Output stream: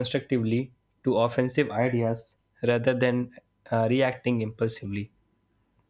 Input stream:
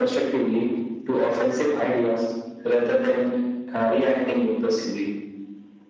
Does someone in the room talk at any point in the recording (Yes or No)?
No